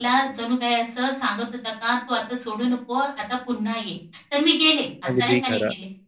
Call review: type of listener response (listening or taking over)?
listening